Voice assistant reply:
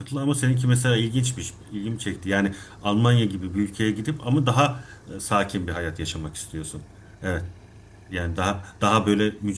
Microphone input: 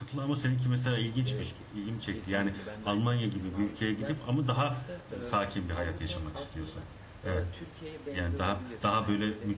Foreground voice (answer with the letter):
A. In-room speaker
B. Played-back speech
B